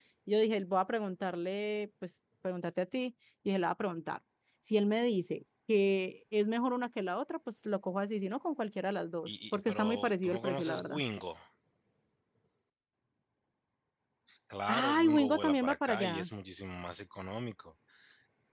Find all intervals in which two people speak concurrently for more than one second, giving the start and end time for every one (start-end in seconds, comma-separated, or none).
9.3-11.0, 14.7-16.3